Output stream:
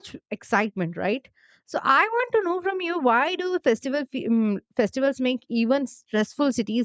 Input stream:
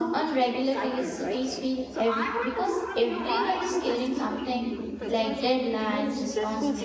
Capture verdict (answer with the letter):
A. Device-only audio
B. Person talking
B